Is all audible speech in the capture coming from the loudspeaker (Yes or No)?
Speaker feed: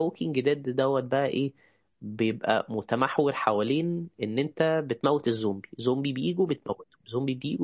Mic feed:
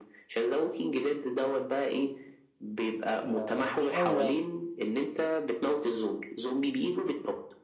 No